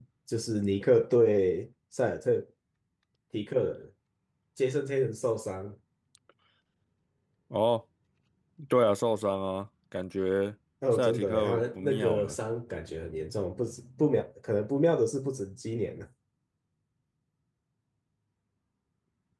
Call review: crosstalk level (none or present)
present